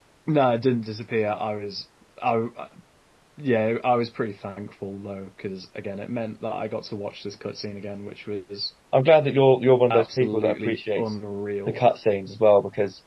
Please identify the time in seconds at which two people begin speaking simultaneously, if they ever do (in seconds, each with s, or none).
9.9 s